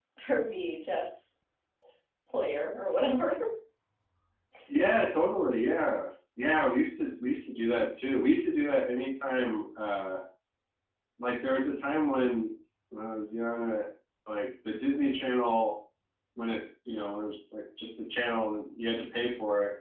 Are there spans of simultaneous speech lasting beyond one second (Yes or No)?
No